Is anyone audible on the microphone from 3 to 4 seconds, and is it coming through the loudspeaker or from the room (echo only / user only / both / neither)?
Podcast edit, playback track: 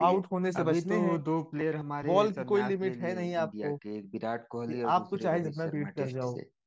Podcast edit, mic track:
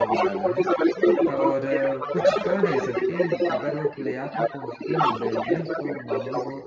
both